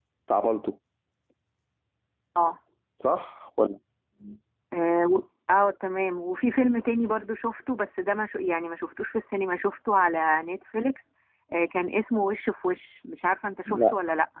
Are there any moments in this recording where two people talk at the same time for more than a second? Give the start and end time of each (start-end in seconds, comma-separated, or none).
none